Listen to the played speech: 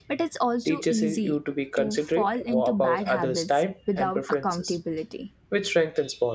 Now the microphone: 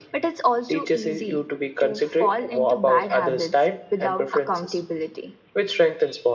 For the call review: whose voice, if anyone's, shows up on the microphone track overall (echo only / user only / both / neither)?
echo only